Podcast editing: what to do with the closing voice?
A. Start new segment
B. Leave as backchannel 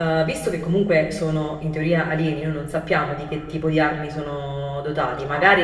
B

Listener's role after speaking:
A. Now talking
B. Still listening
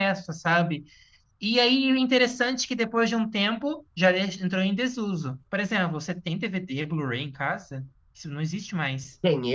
A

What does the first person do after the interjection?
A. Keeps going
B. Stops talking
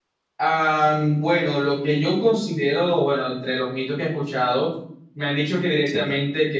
A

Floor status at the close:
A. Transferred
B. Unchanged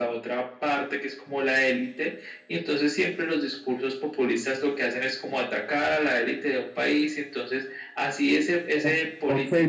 A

